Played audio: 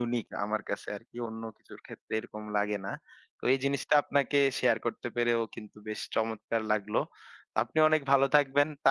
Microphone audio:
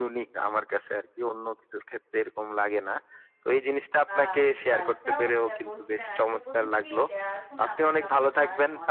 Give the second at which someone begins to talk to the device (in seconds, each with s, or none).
4.1 s